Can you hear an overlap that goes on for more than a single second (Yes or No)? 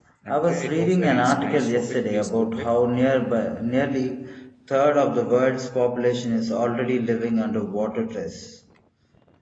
Yes